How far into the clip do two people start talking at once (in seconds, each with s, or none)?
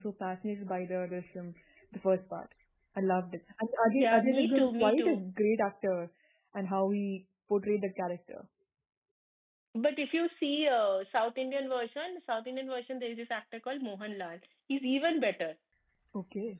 4.0 s